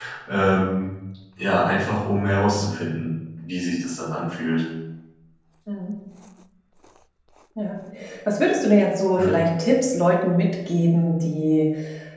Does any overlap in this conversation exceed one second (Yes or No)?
No